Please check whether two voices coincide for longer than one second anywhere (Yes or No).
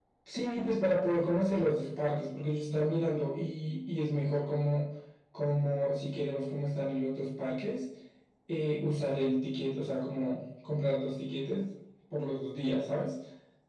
No